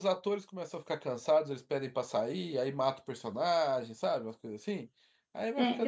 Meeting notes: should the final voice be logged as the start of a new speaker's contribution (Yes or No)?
Yes